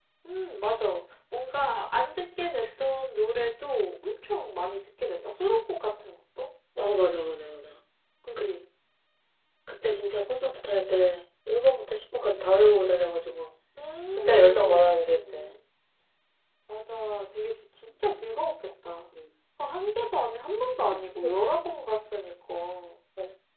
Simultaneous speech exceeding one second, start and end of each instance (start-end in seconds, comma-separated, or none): 14.1-15.5